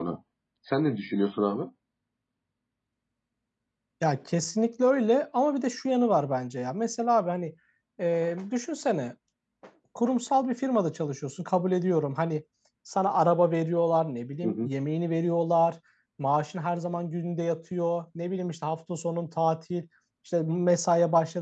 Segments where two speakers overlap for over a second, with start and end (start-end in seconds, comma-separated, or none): none